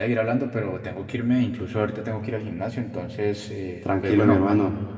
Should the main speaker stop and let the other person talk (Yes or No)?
Yes